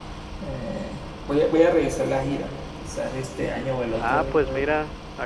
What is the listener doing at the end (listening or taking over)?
taking over